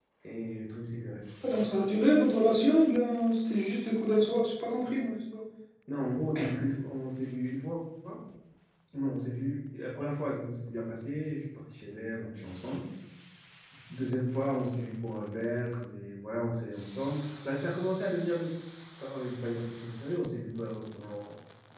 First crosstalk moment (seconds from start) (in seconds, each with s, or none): none